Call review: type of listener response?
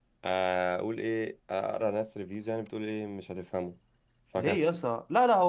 taking over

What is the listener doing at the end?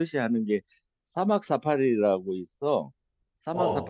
listening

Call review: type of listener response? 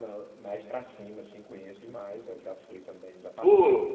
taking over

